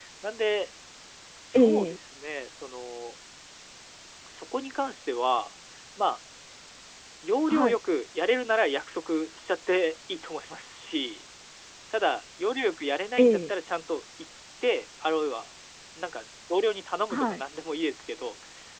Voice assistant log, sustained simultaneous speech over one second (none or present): none